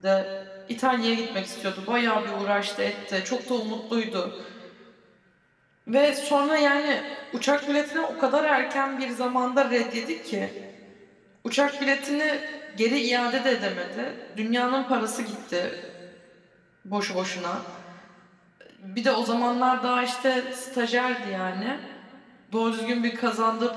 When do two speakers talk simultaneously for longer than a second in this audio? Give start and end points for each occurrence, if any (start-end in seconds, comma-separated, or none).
none